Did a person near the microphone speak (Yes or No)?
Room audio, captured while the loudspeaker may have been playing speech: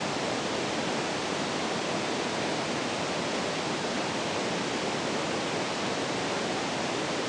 No